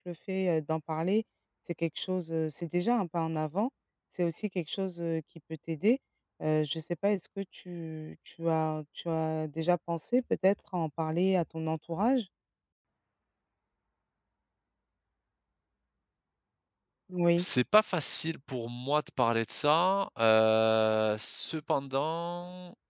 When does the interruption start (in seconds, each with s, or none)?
none